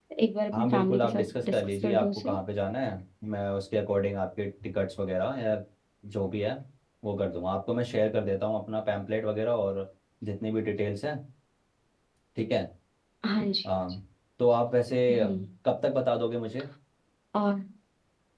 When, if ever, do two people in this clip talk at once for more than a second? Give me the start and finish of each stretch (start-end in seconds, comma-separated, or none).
0.5-2.4